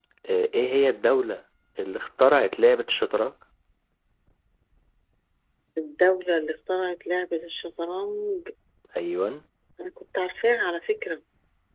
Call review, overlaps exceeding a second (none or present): none